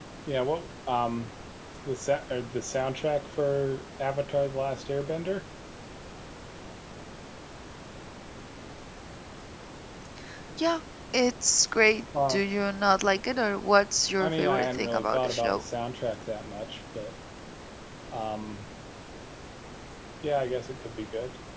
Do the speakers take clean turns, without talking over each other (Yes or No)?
No